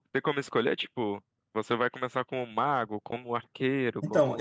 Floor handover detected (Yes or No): Yes